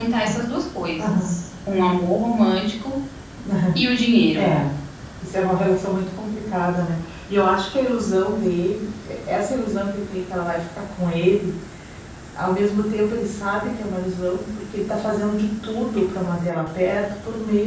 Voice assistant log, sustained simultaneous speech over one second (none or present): none